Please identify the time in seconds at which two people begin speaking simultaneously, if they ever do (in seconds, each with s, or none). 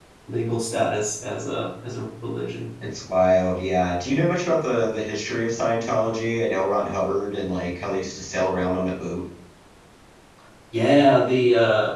none